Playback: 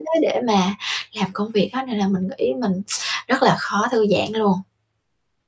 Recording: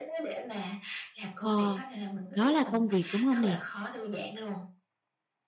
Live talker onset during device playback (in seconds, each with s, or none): 1.4 s